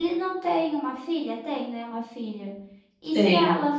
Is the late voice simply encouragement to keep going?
Yes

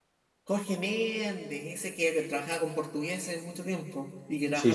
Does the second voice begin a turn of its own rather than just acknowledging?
Yes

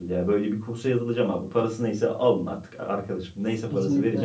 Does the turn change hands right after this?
Yes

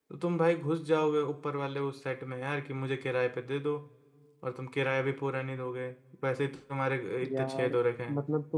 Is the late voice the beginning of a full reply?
Yes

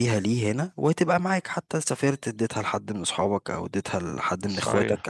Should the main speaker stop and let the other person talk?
Yes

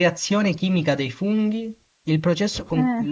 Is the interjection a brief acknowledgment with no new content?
Yes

